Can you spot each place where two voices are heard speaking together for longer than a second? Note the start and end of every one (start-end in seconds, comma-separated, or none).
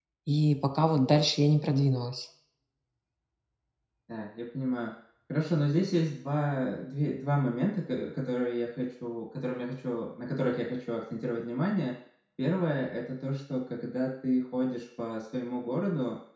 none